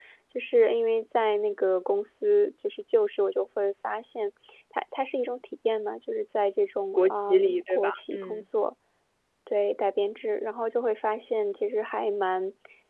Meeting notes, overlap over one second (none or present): present